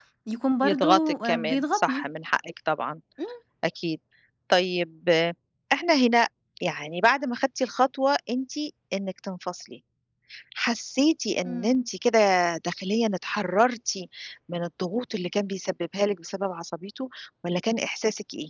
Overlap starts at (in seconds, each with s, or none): 0.6 s